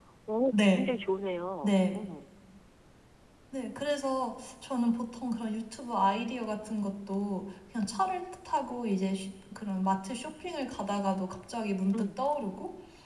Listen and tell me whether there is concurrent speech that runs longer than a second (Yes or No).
No